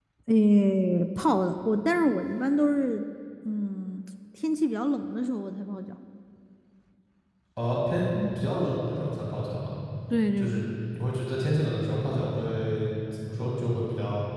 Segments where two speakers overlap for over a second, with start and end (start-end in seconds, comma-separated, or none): none